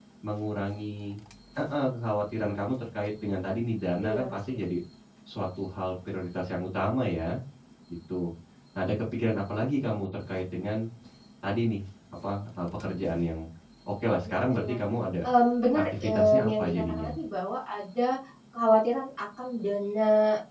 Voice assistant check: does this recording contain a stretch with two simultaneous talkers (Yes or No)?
Yes